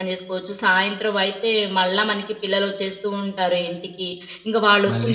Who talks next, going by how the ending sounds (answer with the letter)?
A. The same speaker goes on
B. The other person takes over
A